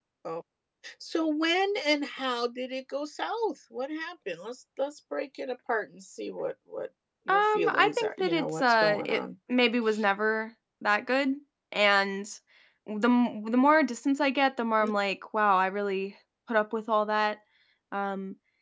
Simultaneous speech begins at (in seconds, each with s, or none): 7.3 s